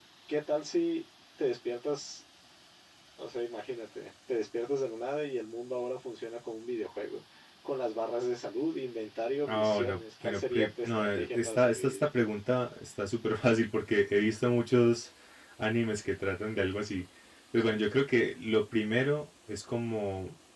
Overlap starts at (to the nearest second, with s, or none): 9 s